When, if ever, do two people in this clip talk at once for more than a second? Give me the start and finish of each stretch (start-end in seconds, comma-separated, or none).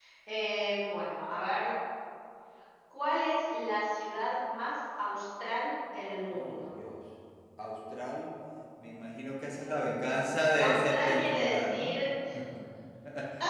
10.6-11.9